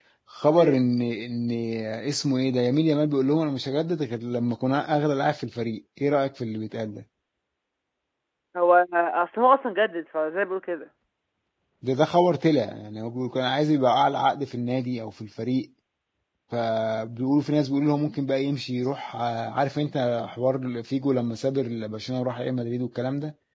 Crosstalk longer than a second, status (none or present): none